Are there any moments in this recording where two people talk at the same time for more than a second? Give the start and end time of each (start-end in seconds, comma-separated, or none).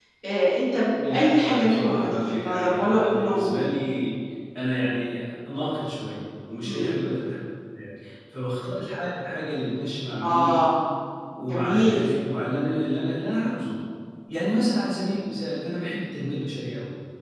0.9-3.6